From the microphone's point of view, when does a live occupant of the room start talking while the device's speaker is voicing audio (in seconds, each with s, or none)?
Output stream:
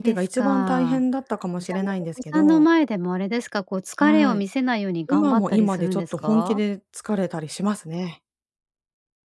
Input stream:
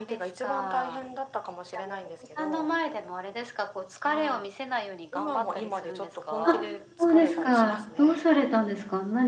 6.4 s